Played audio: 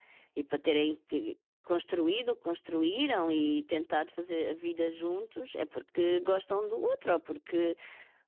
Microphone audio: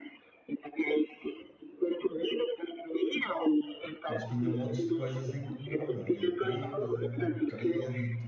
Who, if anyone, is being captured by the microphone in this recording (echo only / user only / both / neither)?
both